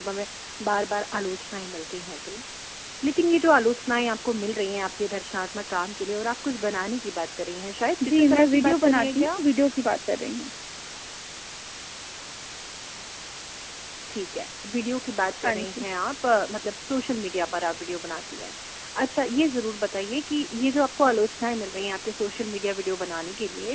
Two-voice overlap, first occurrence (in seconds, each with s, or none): 8.1 s